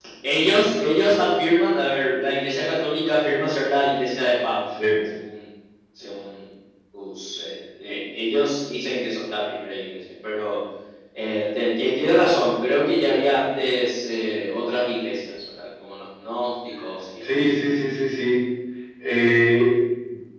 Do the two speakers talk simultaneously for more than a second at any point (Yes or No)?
No